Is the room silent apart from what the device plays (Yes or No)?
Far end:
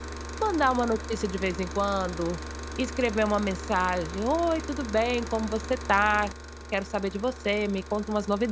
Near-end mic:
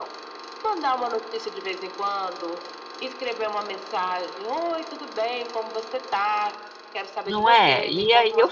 No